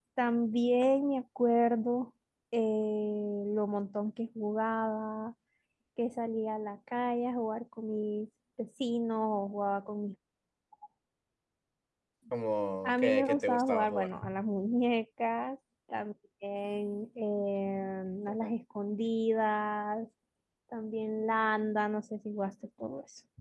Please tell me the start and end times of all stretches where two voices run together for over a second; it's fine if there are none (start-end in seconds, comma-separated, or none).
12.8-14.1